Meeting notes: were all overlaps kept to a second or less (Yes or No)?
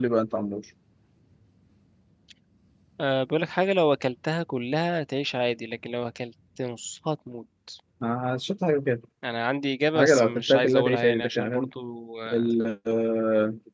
No